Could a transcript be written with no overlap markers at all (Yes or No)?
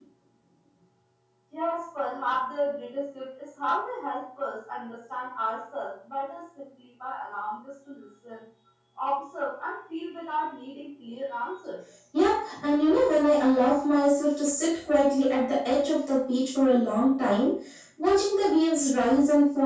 Yes